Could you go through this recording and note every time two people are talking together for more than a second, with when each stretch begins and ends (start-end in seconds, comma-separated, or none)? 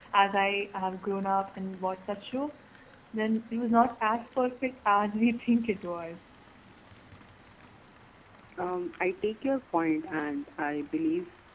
none